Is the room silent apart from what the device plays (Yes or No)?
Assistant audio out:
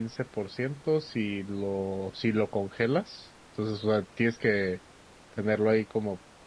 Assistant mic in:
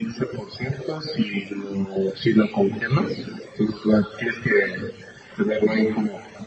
Yes